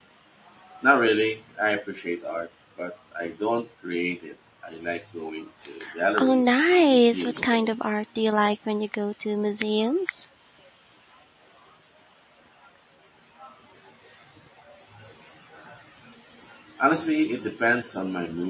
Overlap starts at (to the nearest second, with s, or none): 6 s